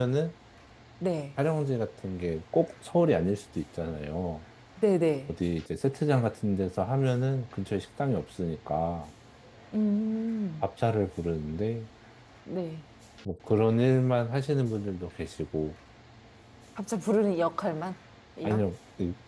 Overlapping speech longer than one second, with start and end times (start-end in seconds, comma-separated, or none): none